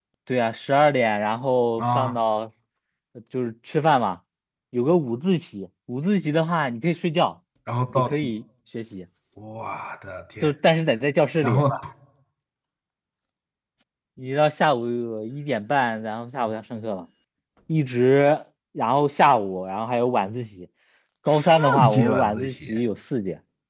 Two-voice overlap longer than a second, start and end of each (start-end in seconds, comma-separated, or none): 21.3-22.7